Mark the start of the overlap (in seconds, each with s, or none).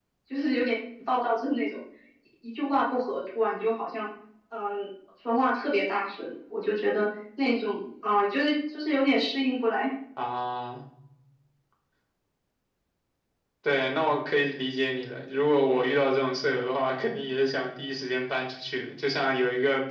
none